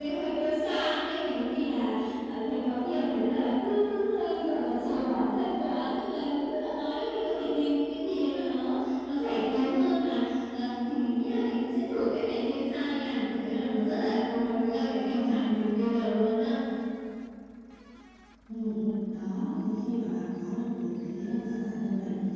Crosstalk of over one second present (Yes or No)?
No